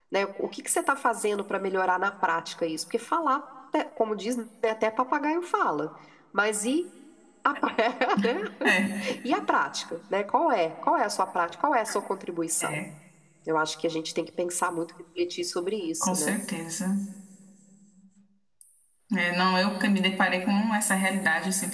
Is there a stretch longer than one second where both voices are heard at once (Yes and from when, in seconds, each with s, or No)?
No